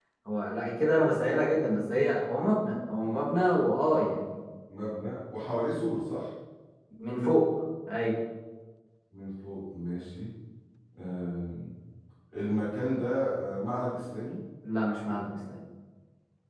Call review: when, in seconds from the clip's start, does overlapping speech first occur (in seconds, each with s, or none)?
none